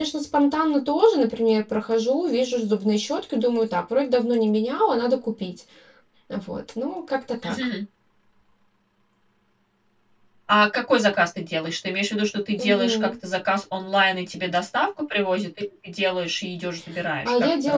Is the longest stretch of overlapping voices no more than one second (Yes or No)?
Yes